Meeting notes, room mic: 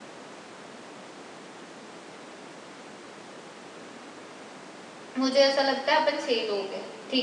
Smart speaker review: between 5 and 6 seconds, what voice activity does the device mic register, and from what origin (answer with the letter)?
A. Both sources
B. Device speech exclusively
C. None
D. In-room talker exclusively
D